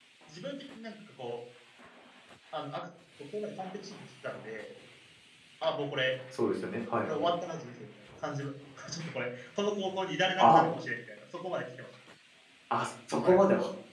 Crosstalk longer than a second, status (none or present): none